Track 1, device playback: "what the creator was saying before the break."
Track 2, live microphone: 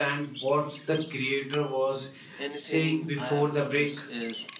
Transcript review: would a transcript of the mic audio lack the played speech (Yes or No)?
No